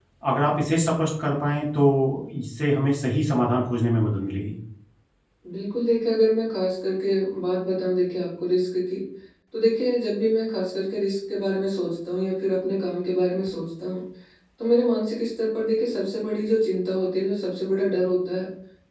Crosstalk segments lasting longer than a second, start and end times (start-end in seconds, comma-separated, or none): none